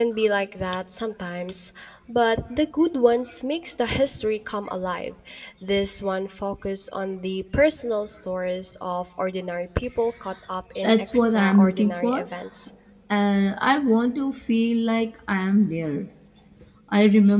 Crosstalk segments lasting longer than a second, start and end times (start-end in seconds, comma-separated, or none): 10.8-12.2